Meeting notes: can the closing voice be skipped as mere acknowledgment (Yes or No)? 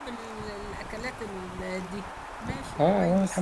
No